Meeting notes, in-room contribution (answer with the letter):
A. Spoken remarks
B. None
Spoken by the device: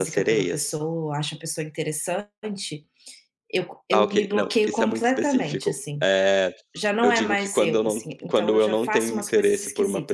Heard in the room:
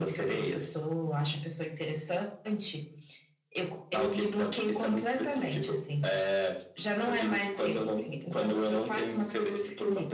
B